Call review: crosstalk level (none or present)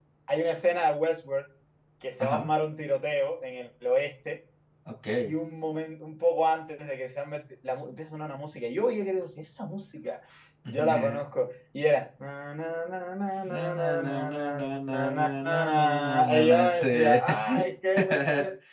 present